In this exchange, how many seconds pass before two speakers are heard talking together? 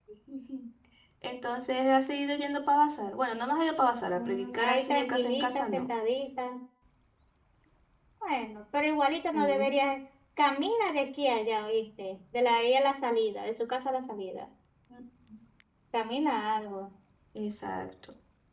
4 s

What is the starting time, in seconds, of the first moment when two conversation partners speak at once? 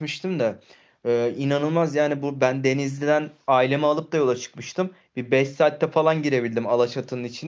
none

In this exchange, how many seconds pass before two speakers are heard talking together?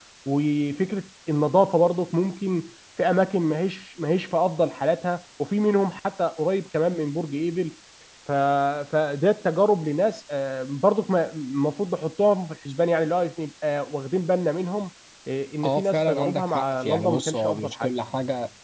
16 s

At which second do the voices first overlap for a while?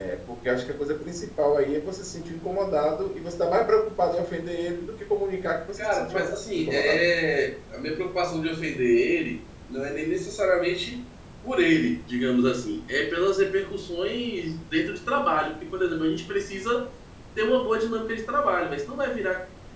6 s

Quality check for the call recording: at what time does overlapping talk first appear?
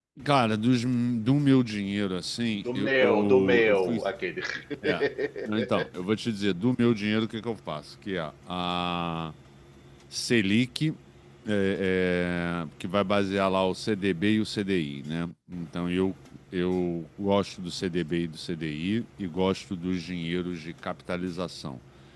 3 s

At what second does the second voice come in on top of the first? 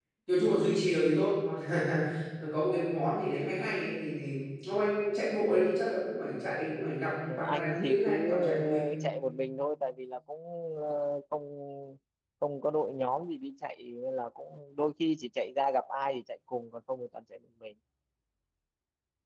7 s

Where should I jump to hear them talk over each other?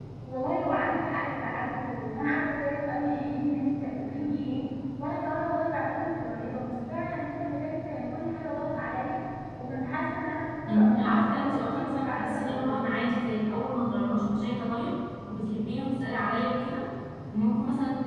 11 s

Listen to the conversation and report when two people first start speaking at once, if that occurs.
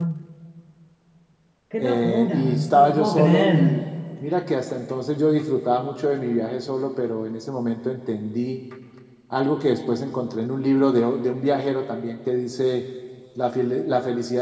2 s

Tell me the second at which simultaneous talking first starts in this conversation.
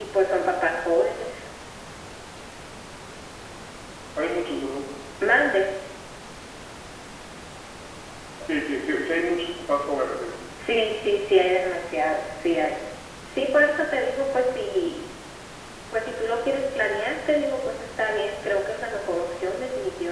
none

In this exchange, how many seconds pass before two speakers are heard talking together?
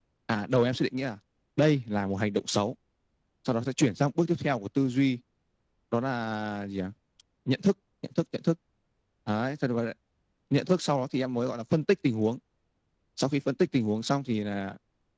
none

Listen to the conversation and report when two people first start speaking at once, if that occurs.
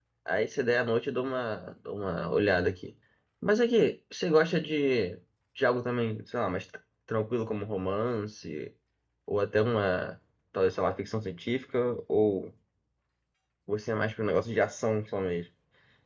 none

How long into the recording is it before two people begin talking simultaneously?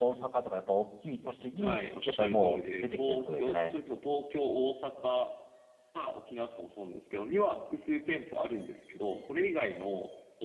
2 s

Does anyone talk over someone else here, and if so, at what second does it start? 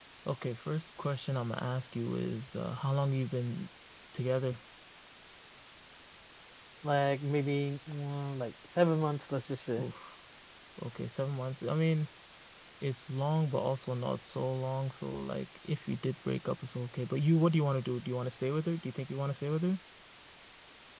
none

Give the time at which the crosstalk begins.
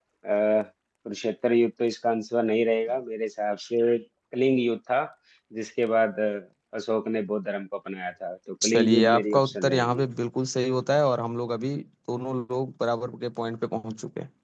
9 s

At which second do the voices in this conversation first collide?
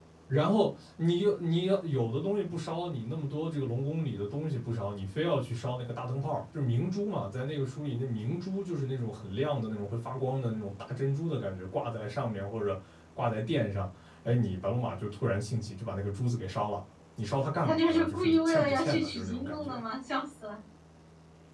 18 s

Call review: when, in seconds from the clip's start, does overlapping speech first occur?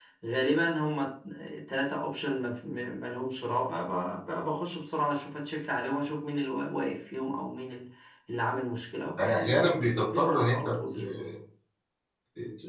9 s

